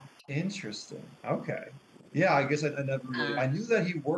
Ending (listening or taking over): listening